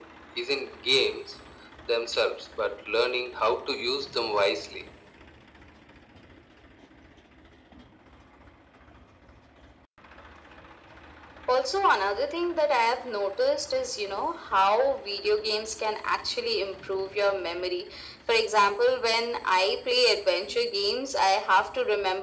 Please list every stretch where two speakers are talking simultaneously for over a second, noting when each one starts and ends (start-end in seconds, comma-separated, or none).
none